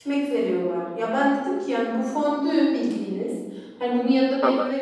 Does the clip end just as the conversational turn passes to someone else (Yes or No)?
No